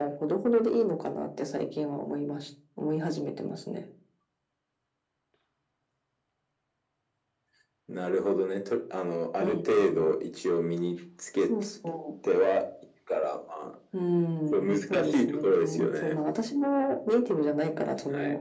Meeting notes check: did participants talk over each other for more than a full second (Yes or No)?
Yes